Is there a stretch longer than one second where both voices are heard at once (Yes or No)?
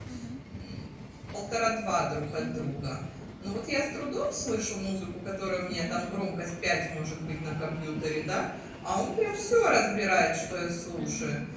No